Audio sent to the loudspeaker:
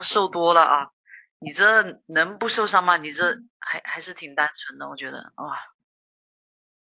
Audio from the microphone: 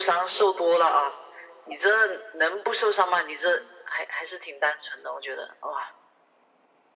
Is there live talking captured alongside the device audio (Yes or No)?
No